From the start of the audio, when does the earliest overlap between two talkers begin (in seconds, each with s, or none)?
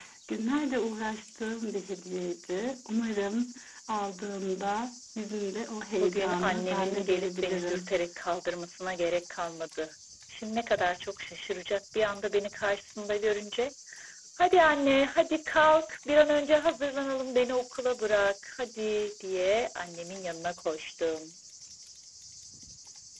6.0 s